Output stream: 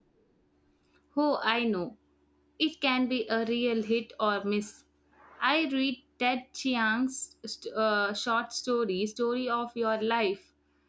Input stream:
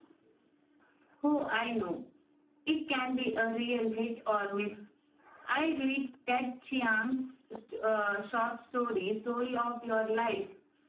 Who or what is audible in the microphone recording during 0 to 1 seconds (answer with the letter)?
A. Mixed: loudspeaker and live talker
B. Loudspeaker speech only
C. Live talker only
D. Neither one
D